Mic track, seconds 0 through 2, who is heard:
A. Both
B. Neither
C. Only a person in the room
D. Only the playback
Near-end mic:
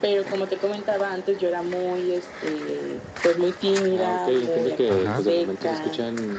D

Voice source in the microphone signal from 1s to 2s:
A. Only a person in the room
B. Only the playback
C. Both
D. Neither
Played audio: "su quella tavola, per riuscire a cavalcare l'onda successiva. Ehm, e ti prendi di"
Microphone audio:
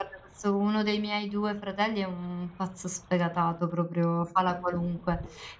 A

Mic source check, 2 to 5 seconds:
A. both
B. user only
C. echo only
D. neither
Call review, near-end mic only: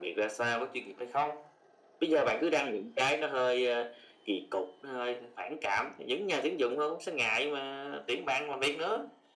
C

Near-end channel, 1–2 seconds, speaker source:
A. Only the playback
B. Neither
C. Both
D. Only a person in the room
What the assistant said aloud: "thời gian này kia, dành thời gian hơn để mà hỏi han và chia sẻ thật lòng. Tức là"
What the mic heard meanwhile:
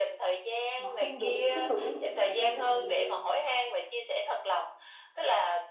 C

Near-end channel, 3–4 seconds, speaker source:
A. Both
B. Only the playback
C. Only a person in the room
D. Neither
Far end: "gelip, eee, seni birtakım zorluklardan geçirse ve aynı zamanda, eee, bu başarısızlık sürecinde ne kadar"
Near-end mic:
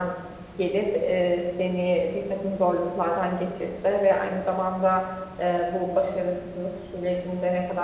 B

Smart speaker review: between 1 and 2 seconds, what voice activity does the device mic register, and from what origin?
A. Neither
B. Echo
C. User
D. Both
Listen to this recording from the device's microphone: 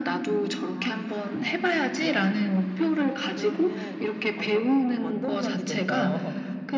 B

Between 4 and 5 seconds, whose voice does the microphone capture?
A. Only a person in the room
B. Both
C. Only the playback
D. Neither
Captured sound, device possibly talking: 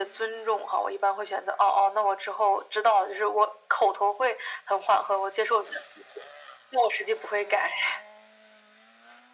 C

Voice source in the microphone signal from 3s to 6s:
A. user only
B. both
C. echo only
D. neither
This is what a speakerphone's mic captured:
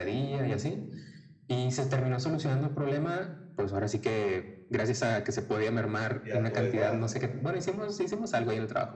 C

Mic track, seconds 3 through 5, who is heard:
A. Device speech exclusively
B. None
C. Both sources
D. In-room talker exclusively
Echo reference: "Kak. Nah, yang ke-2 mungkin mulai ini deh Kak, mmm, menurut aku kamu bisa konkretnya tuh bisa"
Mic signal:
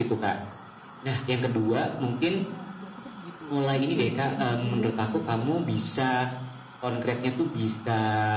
C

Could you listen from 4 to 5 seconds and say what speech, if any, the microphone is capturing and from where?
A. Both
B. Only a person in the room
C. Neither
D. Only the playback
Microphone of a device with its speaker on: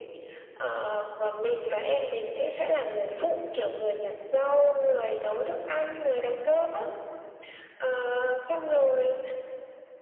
D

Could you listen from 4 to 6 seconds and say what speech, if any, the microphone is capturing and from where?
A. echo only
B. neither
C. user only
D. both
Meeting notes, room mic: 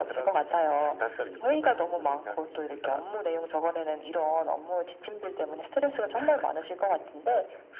A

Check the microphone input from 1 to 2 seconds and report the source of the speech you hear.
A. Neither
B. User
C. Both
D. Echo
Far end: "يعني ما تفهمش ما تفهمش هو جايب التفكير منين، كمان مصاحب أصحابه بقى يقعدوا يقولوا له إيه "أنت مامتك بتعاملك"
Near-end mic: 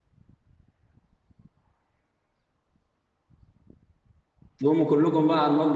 A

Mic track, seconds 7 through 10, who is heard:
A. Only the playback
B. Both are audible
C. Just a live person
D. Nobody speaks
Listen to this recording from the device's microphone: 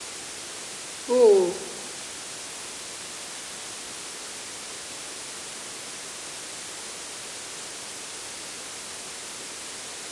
D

